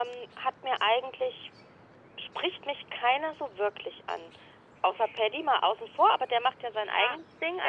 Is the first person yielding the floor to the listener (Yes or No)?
Yes